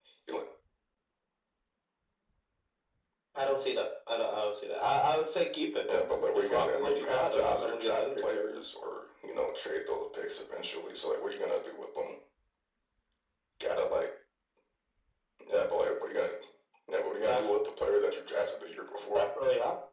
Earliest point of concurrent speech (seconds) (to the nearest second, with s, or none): 6 s